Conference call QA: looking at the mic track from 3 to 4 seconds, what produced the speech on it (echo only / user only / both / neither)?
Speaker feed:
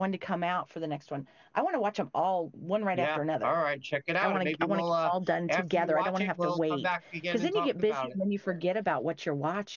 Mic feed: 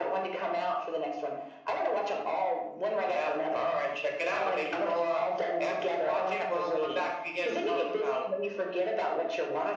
echo only